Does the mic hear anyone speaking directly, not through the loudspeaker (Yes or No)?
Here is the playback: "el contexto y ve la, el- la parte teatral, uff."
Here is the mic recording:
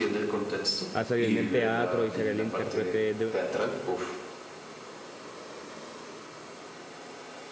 Yes